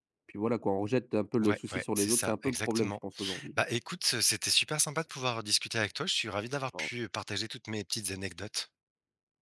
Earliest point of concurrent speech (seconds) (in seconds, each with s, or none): 1.4 s